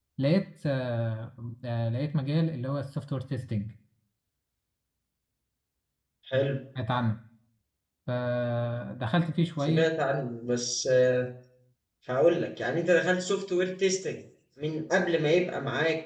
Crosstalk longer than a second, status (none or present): none